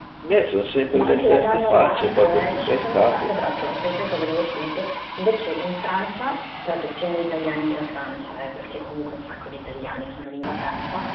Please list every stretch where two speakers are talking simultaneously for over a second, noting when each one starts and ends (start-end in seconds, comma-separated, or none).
0.9-3.3